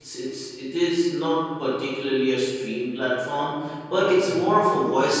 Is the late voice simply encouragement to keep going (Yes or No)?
Yes